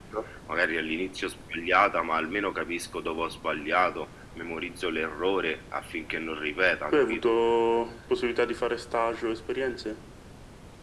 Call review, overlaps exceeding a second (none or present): none